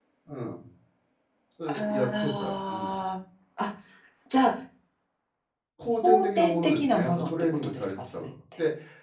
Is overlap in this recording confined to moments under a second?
No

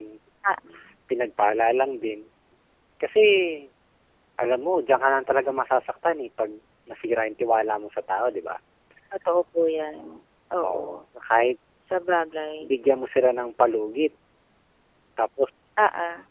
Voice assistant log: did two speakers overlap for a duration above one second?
No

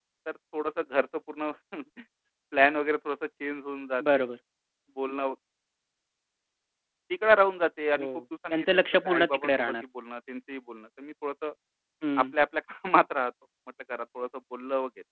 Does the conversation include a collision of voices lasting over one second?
Yes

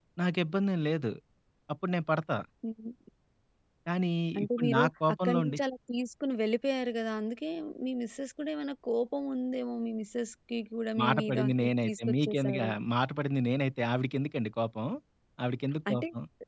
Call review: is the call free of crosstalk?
No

